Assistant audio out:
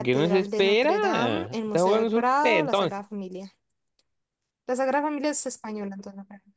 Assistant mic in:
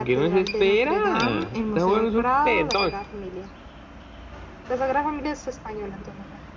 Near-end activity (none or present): none